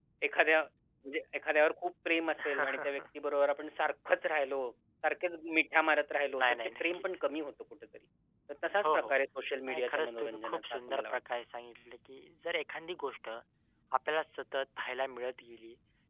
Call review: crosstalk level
present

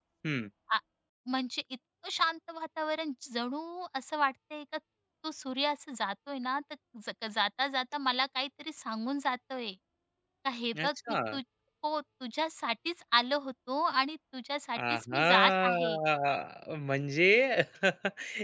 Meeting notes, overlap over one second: present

